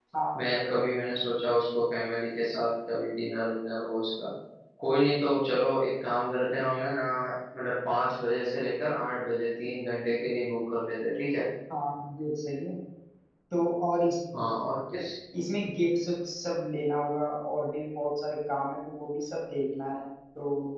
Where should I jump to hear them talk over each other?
none

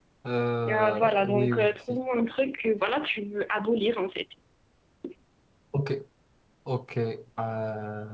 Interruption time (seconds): 0.7 s

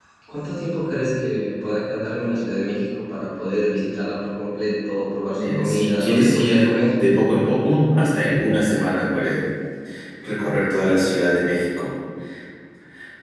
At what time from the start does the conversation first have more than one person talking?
5.3 s

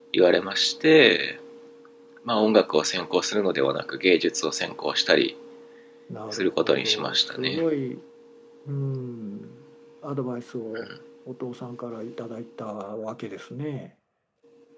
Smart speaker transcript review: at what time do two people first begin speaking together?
6.3 s

